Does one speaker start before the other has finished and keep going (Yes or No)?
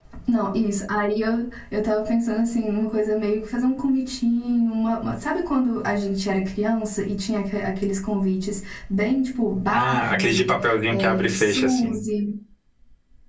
Yes